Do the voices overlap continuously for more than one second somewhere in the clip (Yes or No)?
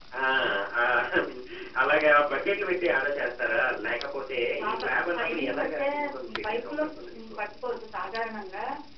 Yes